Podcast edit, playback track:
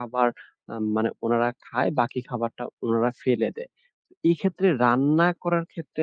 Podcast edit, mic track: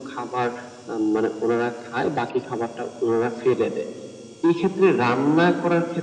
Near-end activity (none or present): none